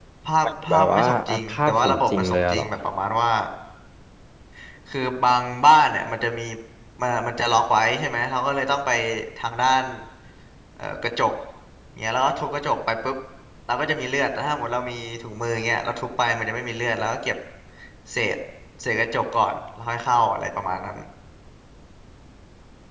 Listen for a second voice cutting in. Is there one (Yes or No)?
Yes